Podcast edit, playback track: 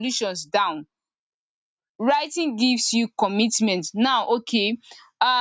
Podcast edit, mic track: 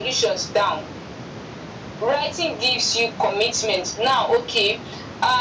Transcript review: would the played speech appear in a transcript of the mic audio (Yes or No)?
Yes